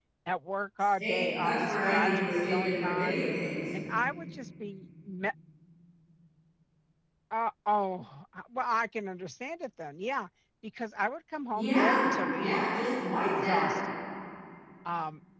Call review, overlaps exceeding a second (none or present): present